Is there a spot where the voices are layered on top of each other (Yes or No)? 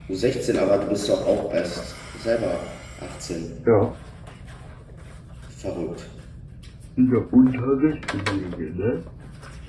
No